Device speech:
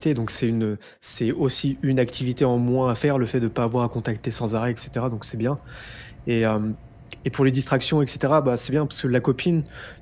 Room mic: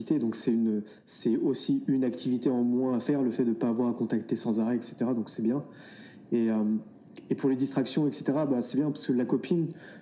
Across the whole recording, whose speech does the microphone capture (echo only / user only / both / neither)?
echo only